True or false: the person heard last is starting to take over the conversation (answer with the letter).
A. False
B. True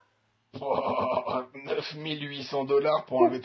B